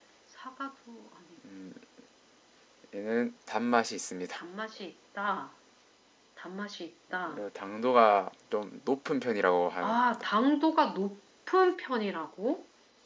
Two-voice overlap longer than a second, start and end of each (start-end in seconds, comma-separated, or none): none